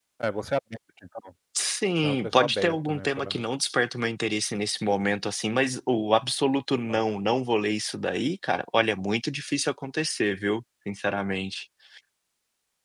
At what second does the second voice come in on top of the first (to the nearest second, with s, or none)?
2 s